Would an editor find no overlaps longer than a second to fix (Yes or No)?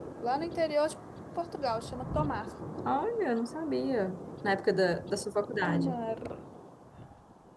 Yes